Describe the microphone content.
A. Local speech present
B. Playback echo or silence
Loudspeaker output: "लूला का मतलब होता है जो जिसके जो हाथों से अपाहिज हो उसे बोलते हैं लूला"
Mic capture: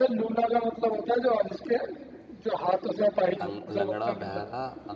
A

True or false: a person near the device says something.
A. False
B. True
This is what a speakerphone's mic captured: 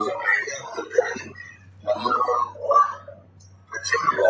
A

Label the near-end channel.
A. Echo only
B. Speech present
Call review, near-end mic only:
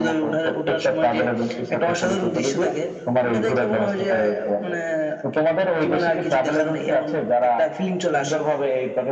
A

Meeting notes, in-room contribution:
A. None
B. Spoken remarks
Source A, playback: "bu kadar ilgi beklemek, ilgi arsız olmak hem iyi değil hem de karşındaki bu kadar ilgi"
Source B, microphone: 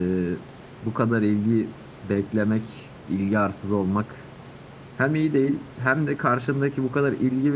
A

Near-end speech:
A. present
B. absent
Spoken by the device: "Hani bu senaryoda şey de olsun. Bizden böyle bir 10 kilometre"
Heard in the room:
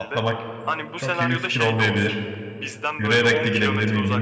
A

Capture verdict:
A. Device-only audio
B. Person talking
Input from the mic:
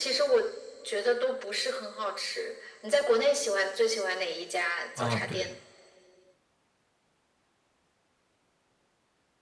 B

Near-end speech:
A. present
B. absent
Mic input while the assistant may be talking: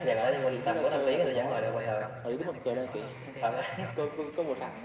A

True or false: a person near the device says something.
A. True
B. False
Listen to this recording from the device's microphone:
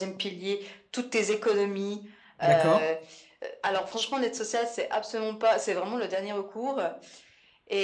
A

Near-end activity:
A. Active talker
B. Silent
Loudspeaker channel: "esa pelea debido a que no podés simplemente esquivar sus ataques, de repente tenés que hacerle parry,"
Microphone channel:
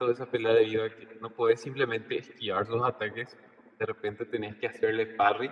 B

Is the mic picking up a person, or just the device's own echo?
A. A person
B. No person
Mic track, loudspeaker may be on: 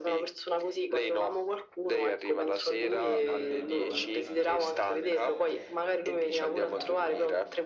A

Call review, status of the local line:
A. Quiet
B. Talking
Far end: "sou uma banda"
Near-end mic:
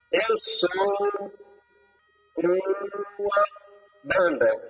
A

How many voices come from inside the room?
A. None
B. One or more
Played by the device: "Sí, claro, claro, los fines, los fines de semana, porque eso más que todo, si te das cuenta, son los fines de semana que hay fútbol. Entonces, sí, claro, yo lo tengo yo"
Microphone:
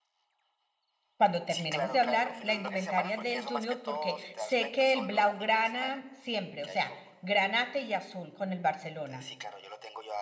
B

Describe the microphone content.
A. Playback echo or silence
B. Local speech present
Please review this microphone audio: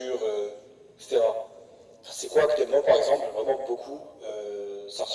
A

